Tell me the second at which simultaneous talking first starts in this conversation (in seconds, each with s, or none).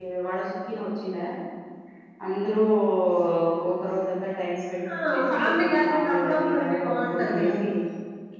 5.1 s